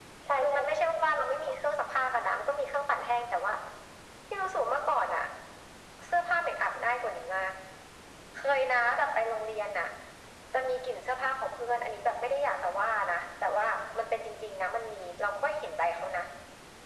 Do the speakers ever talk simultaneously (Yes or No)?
Yes